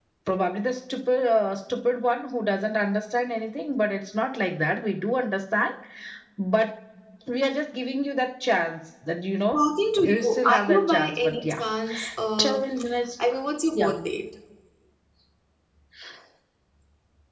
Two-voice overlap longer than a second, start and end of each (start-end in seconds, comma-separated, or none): 9.5-11.3